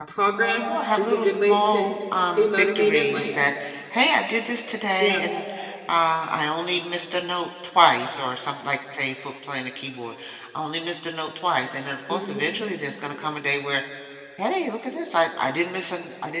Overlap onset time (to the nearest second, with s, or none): 1 s